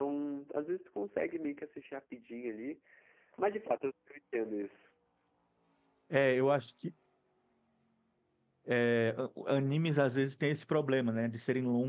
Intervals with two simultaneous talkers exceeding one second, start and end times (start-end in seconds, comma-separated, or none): none